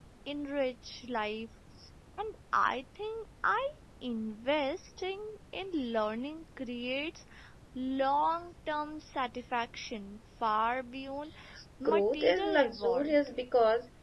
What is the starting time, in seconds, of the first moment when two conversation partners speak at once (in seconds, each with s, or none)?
11.8 s